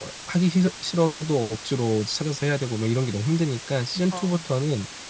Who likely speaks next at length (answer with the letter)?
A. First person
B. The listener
A